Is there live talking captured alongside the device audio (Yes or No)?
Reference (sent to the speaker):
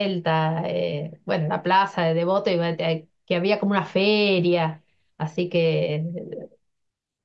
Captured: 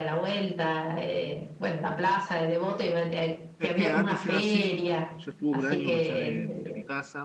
Yes